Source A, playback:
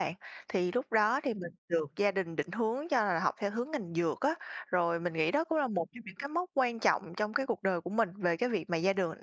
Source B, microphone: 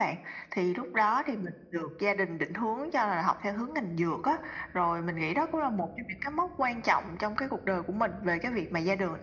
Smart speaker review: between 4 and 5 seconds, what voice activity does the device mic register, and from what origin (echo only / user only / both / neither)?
echo only